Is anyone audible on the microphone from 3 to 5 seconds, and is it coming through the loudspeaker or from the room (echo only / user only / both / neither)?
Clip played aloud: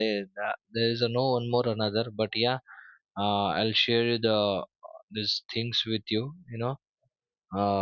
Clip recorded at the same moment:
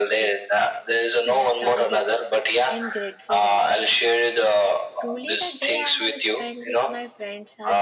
both